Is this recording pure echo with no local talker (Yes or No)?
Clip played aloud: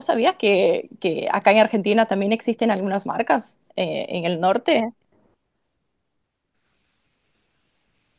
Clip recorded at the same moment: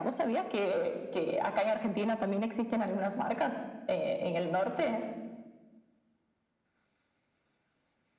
Yes